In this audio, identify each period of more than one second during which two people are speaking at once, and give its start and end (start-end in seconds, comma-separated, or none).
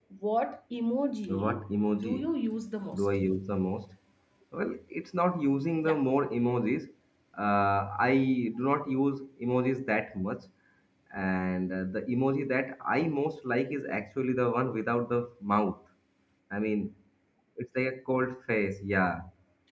none